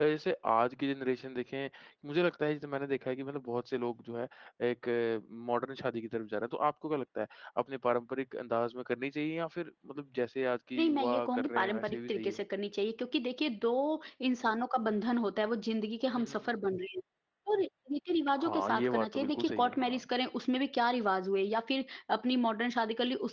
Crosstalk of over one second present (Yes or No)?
Yes